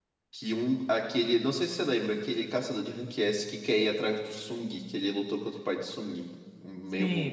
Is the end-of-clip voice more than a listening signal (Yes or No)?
Yes